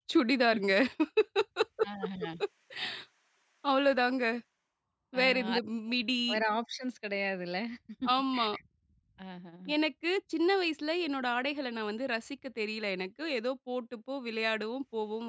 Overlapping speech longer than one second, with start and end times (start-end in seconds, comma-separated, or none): none